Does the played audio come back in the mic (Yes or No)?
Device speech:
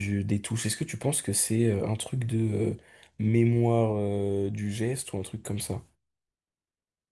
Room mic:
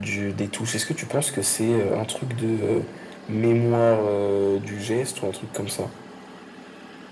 Yes